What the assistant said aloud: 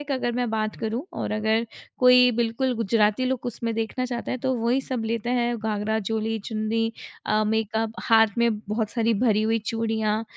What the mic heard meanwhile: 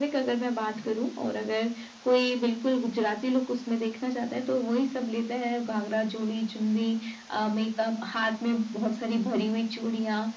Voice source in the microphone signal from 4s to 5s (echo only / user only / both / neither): echo only